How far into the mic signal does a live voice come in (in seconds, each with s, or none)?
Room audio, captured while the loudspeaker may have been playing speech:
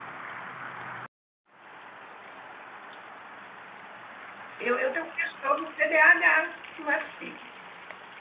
4.6 s